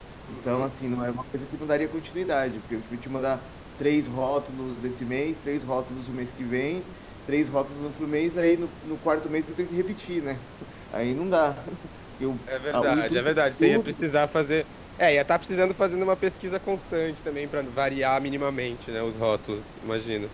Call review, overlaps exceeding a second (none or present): present